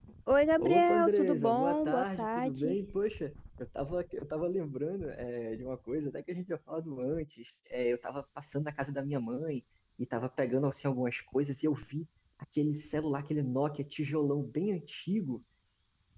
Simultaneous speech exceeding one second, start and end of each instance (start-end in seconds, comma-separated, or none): 0.6-2.8